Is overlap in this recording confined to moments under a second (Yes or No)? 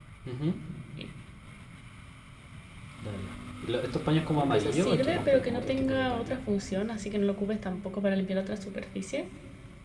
No